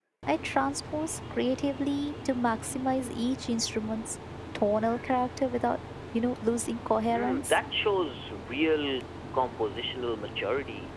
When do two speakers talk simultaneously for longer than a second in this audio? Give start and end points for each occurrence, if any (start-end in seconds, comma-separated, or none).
none